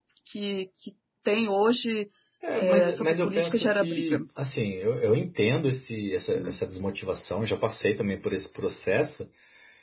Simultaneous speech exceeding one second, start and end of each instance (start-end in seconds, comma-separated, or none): 2.5-4.2